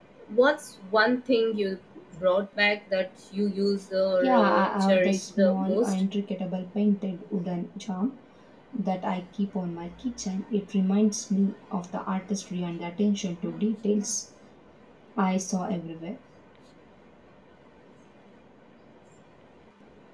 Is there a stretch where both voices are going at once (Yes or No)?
Yes